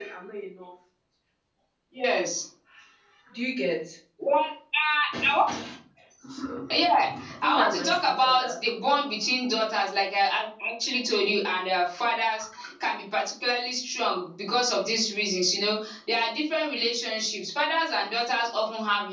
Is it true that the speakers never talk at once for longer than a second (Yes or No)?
No